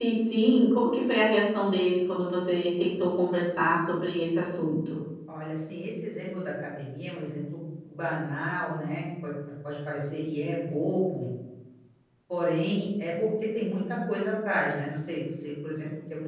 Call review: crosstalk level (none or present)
none